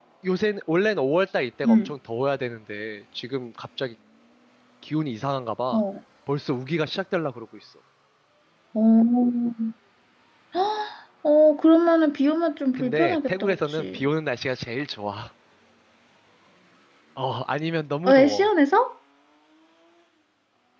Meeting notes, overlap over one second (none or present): present